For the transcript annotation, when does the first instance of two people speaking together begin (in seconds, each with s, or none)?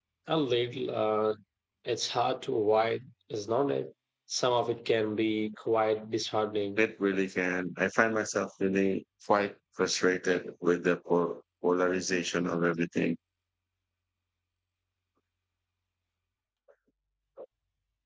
none